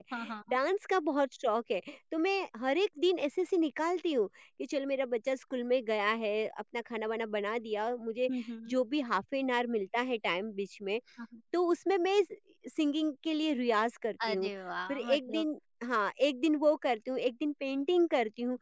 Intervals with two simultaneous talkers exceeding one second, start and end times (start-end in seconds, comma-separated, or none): none